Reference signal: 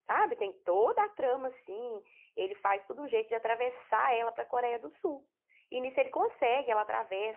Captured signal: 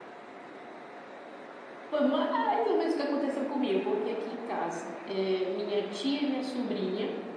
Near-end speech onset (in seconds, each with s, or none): 1.9 s